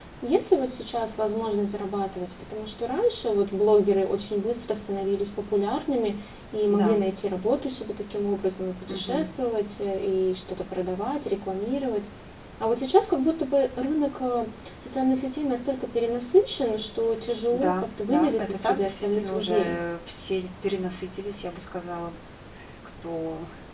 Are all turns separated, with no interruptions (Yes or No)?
No